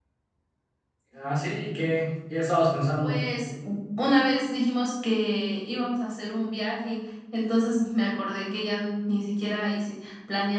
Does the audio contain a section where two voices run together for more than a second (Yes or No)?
No